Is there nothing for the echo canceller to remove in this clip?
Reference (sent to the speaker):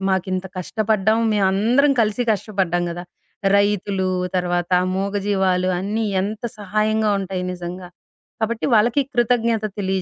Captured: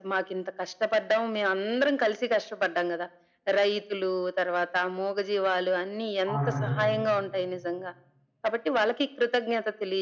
No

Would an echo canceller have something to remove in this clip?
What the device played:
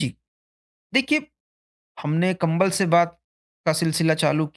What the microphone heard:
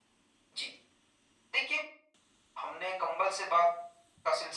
Yes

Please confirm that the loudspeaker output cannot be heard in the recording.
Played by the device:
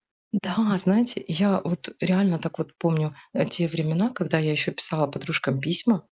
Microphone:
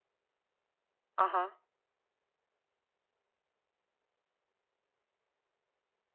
Yes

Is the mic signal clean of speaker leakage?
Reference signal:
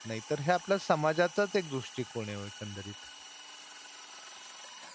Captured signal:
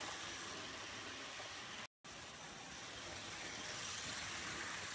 Yes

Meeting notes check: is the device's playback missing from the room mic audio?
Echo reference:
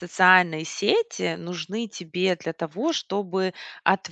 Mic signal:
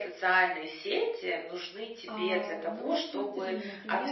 No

